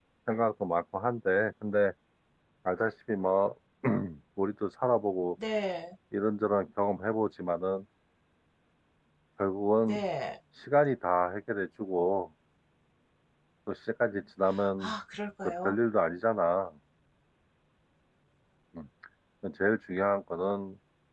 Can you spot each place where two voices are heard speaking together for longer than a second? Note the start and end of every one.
none

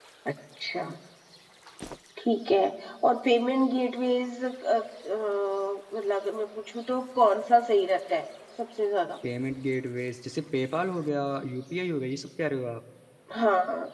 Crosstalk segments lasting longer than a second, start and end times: none

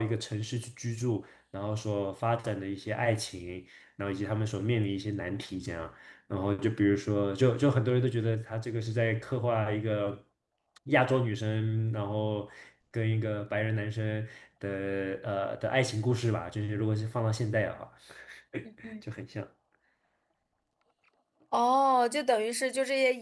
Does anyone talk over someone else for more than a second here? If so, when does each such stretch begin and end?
none

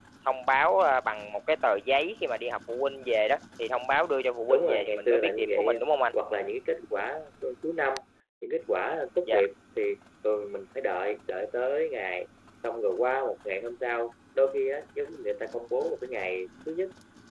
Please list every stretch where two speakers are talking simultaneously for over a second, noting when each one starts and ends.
4.4-5.8

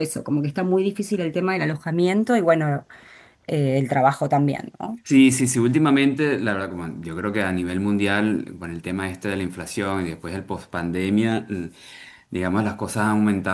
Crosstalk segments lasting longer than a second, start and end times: none

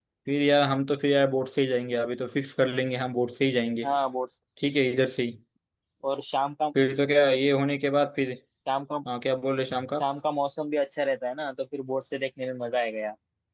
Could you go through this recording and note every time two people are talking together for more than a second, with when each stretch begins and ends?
none

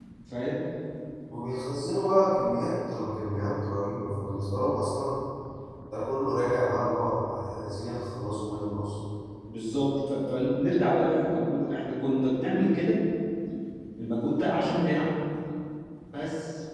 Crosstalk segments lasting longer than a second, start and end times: none

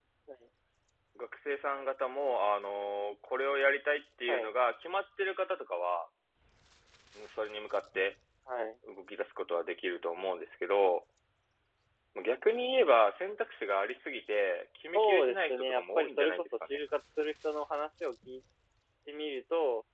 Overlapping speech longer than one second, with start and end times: 14.9-16.8

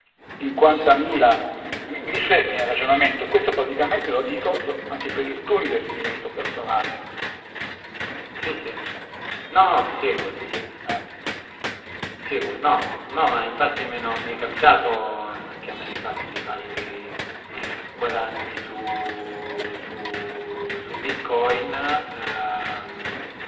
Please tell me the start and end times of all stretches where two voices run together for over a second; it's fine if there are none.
none

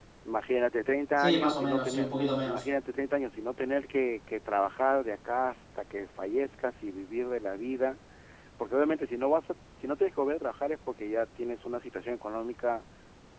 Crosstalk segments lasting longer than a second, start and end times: 1.2-2.6

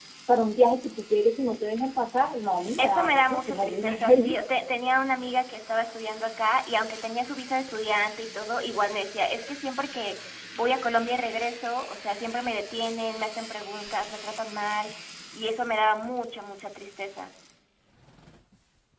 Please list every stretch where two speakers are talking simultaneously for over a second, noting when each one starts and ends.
2.8-4.4

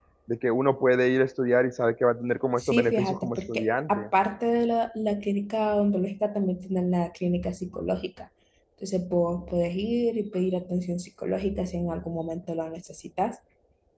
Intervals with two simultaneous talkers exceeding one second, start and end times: 2.6-4.1

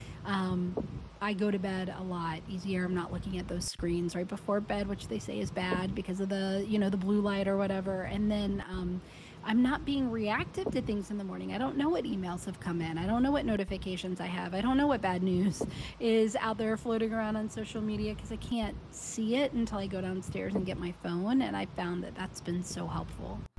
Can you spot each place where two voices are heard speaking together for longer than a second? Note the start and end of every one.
none

